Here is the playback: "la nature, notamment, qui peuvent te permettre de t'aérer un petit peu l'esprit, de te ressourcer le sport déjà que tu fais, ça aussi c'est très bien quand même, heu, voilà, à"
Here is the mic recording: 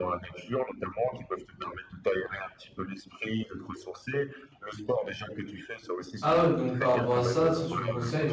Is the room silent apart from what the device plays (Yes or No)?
No